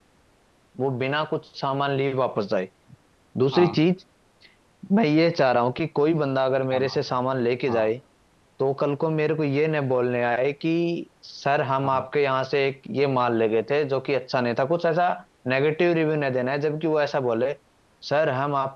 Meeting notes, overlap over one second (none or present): none